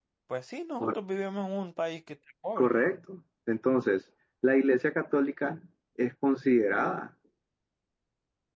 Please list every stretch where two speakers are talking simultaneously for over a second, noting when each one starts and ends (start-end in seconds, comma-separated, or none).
none